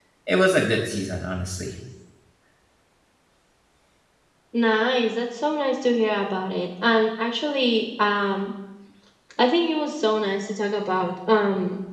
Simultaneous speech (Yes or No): No